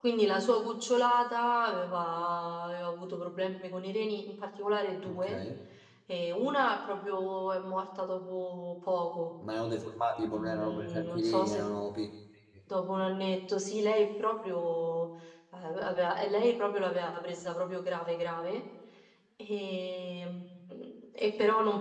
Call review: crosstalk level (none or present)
present